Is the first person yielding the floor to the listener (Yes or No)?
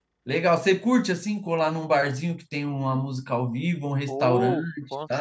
Yes